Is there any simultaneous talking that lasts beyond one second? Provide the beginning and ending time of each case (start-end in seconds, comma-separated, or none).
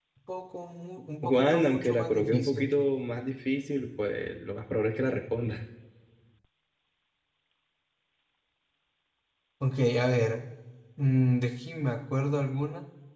1.2-2.8